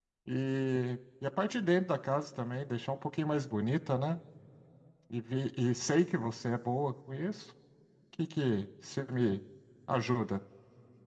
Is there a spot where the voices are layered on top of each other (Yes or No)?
No